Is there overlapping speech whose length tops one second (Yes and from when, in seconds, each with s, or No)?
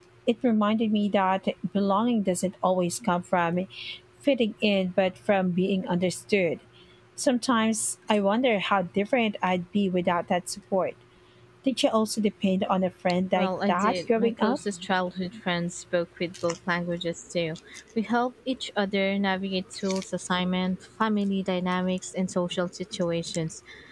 Yes, from 13.3 s